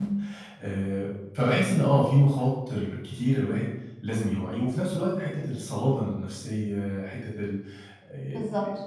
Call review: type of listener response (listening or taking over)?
taking over